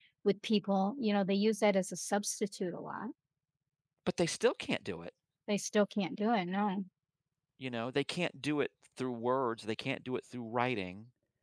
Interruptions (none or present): none